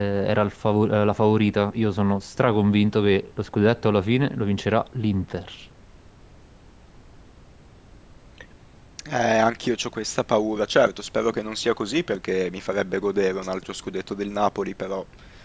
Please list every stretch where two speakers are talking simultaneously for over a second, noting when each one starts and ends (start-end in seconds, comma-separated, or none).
none